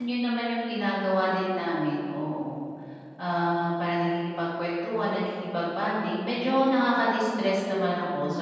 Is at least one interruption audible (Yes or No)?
No